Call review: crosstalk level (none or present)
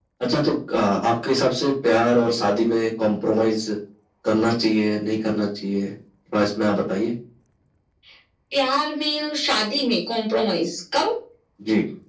none